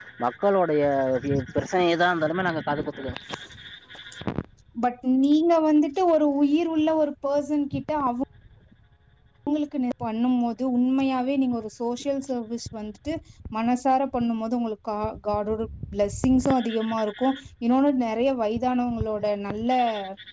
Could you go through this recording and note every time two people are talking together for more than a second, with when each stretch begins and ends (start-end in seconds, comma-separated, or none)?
none